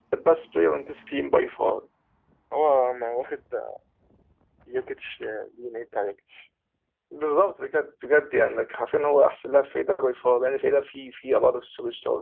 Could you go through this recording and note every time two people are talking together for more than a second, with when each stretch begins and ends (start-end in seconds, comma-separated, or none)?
none